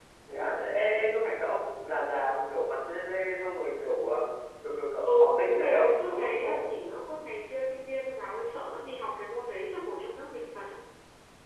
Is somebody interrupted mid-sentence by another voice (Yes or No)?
Yes